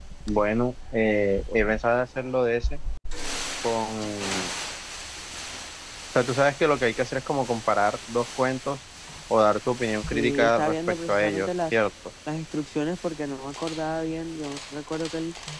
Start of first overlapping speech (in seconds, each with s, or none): 10.1 s